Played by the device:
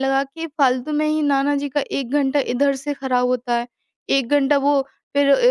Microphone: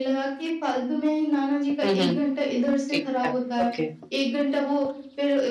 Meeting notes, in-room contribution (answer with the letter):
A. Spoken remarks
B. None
A